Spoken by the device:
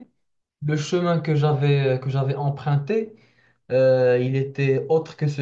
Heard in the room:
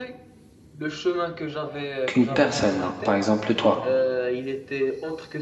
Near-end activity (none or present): present